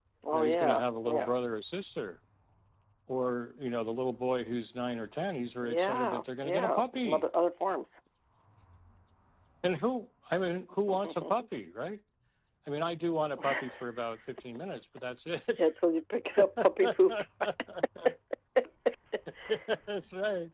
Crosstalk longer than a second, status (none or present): present